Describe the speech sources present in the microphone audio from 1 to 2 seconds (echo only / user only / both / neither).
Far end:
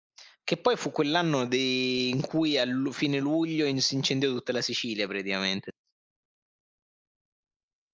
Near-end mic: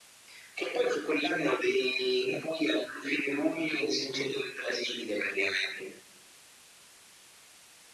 echo only